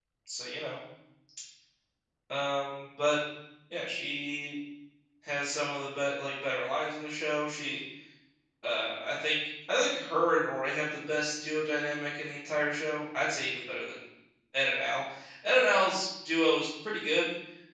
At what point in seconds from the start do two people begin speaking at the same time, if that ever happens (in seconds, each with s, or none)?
none